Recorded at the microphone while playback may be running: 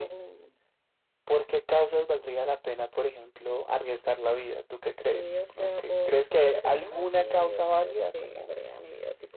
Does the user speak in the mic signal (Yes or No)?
No